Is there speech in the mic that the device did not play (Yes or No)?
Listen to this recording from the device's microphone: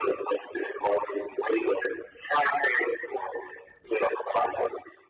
No